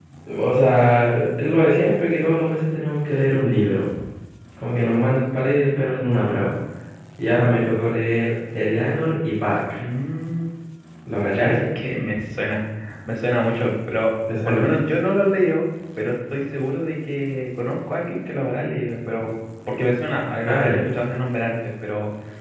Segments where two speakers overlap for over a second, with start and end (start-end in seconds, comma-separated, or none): none